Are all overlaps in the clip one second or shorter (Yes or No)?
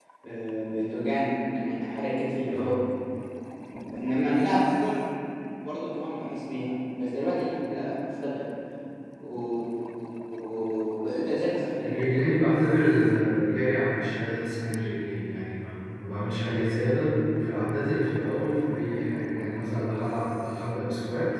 Yes